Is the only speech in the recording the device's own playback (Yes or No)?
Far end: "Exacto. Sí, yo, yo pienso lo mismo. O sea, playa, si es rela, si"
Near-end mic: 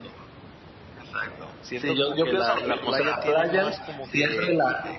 No